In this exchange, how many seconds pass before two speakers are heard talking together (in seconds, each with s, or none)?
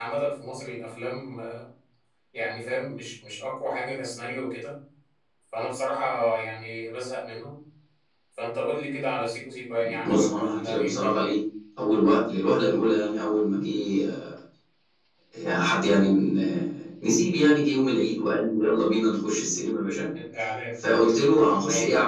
10.1 s